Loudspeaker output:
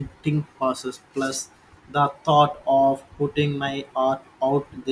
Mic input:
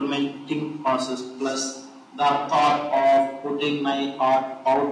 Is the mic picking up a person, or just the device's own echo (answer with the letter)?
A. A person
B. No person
B